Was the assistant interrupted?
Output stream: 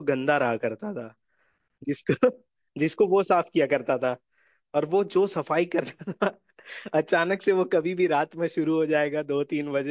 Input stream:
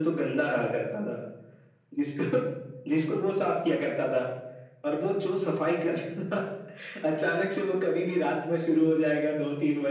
No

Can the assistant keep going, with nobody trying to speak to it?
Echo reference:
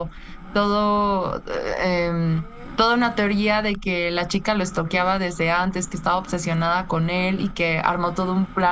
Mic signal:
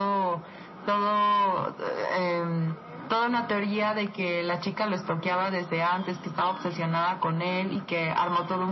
Yes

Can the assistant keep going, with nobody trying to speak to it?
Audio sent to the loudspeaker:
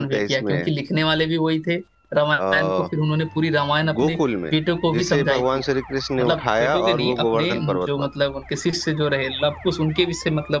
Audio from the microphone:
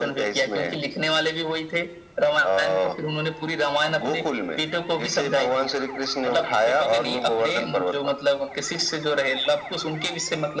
Yes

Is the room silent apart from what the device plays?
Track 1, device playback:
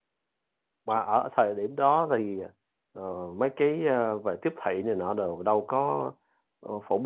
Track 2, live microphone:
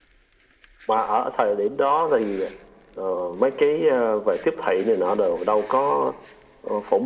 Yes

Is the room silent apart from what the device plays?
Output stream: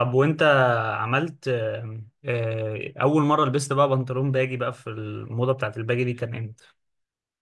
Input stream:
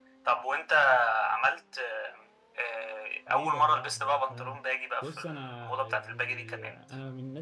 No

